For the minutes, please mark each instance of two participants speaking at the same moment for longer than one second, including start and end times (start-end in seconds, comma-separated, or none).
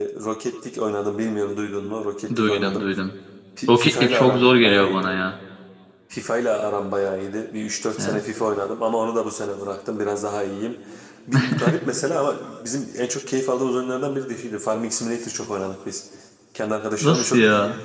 3.7-5.1